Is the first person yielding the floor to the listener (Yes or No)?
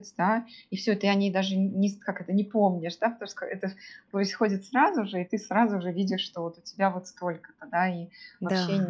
No